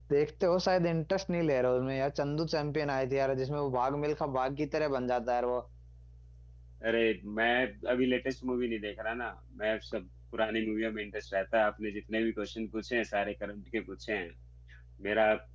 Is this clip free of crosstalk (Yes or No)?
Yes